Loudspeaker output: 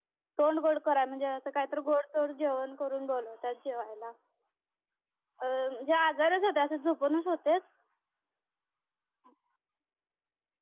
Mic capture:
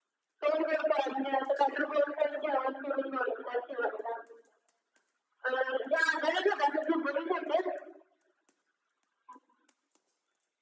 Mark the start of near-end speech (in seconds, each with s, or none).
none